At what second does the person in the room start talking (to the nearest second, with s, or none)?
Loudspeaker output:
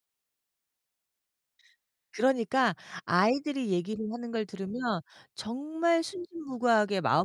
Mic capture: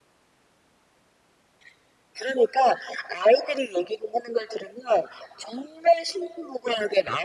none